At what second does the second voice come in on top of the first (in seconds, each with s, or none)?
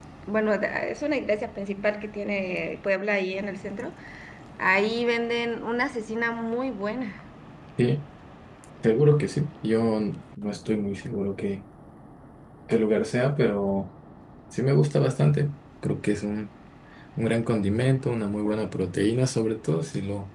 none